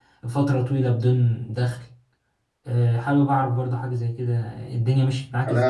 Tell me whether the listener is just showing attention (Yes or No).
No